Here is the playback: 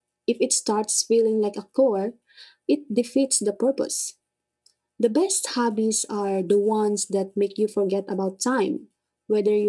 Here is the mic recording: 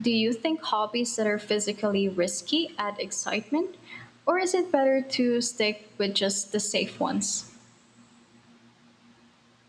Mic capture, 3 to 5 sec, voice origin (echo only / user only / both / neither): user only